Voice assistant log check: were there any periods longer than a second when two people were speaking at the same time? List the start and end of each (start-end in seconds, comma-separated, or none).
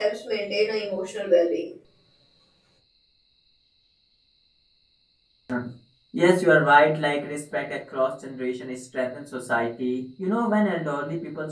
none